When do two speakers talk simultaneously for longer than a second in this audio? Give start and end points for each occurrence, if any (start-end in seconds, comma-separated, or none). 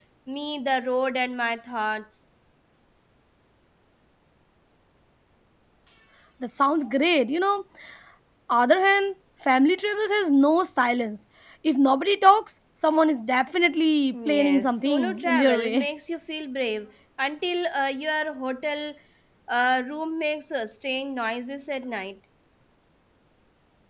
14.3-15.9